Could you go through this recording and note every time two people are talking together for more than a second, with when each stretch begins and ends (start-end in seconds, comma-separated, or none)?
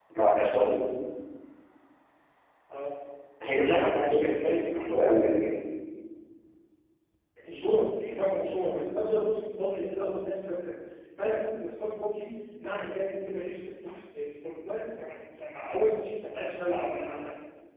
3.7-4.9